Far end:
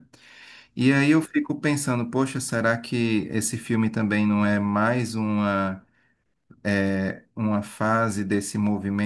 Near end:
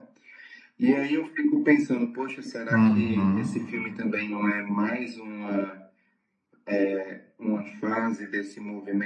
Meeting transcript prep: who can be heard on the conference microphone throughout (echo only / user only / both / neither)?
both